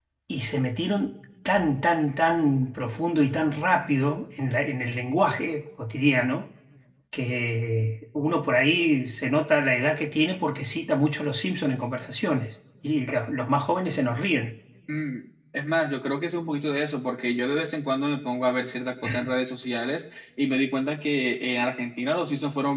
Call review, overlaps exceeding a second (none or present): none